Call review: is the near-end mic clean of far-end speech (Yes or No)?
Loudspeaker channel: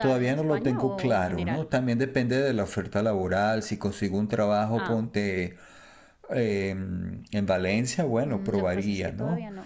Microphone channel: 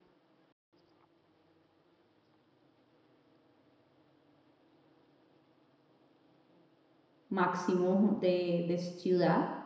Yes